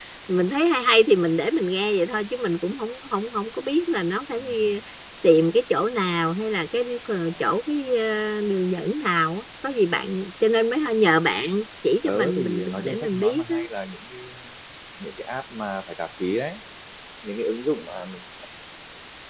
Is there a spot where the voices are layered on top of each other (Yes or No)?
Yes